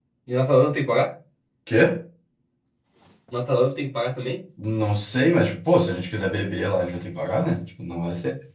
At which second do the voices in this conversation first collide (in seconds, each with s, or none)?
none